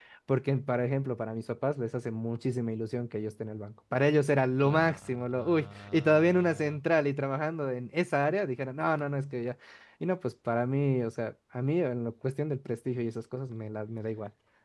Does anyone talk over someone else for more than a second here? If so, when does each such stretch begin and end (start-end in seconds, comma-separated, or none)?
4.6-6.8